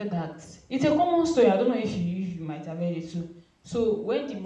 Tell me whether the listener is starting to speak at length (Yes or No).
No